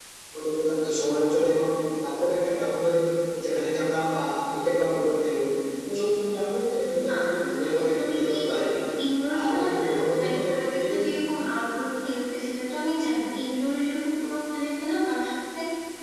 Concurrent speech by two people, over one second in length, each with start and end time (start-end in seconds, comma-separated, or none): 7.1-8.4, 9.4-11.1